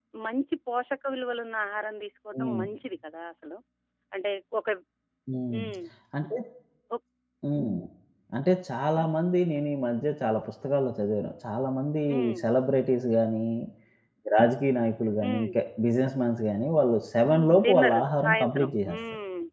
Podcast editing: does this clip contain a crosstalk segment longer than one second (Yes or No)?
Yes